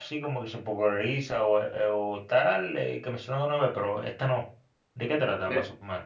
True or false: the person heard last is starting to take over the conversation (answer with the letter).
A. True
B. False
A